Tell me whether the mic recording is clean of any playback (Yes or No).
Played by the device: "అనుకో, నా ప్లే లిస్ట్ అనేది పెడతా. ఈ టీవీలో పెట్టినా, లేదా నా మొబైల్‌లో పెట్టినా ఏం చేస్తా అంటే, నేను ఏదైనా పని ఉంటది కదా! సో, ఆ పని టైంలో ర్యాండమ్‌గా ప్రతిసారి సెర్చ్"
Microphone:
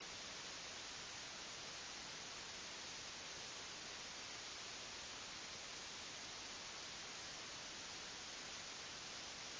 Yes